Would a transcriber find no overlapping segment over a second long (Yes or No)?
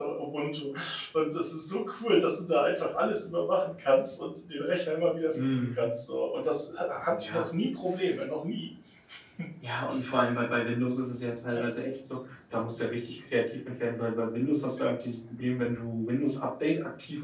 Yes